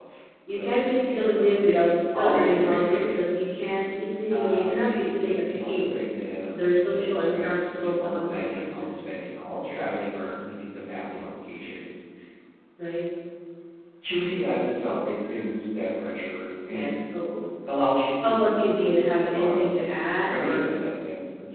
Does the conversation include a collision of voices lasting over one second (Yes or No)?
Yes